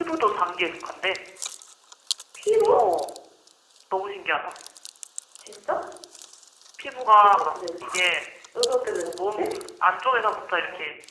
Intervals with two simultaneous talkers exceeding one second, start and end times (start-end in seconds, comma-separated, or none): none